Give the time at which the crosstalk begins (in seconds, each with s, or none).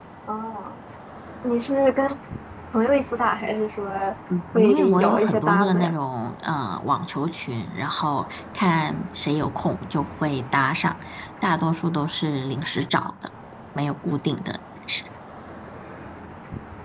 4.5 s